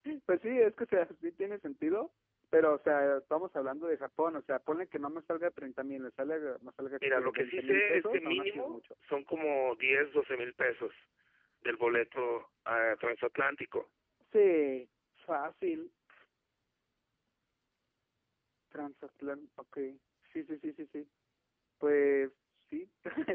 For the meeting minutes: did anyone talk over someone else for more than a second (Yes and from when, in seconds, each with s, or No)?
Yes, from 7.0 s